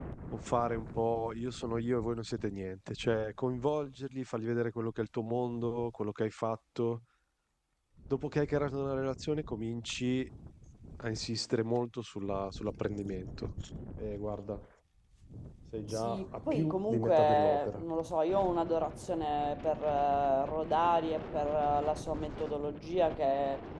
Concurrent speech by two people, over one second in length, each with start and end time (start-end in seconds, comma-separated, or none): 15.9-17.8